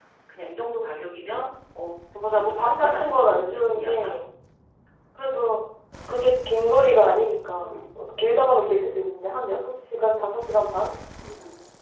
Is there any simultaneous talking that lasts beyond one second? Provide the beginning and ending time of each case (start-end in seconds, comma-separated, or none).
2.3-4.1